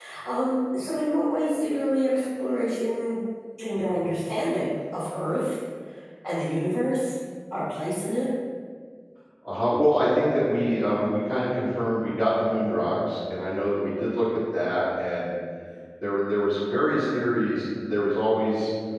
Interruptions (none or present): none